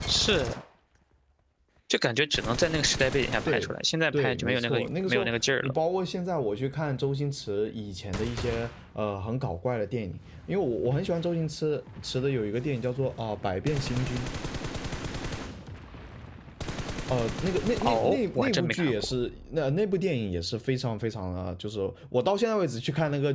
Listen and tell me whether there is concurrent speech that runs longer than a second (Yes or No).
Yes